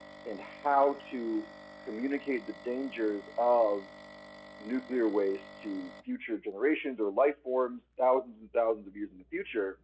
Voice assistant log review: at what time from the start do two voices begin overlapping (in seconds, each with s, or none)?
none